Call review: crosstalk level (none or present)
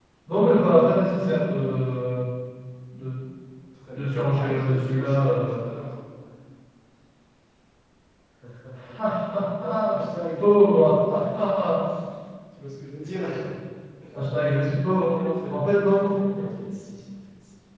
present